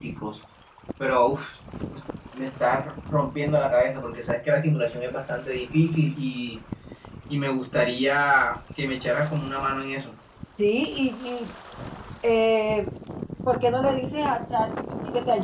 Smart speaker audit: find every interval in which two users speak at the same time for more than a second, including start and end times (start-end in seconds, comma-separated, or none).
none